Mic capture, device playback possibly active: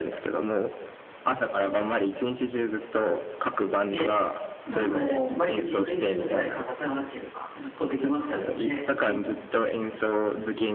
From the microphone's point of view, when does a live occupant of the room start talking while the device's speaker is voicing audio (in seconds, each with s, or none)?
3.9 s